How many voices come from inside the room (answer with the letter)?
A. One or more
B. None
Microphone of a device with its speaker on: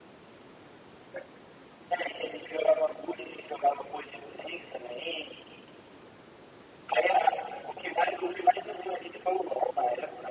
B